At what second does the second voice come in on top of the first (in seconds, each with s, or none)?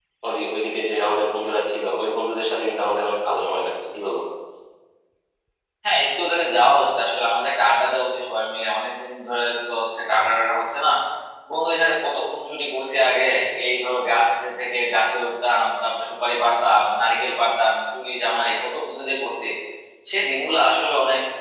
none